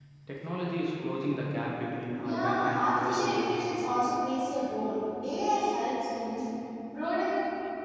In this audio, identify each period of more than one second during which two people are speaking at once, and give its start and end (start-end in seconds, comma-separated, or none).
2.2-3.5